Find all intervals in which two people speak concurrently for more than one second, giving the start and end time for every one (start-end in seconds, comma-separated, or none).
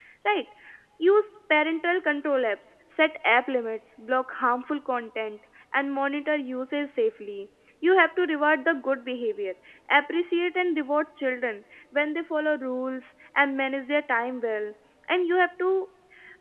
none